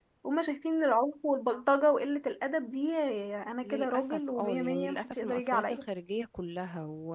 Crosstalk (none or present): present